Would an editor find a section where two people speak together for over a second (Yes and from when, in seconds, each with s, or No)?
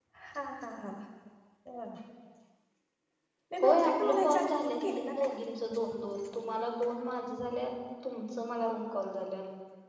Yes, from 3.6 s